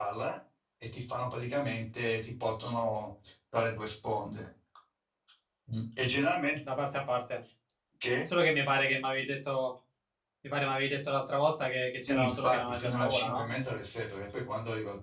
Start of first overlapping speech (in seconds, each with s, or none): 12.1 s